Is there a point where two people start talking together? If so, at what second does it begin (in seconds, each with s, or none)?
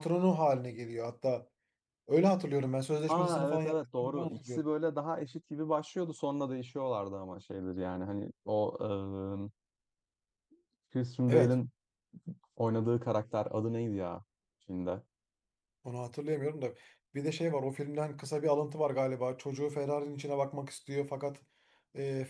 3.1 s